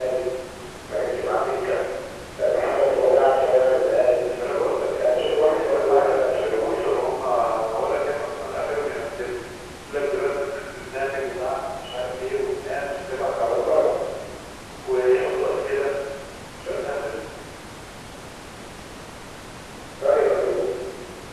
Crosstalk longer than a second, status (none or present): present